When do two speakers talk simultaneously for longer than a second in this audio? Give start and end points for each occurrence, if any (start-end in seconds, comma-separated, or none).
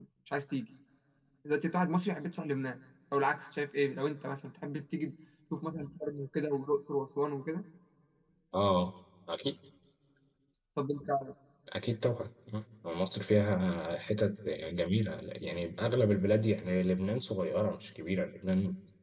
none